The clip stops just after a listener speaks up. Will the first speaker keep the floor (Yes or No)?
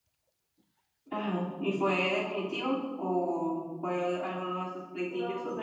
No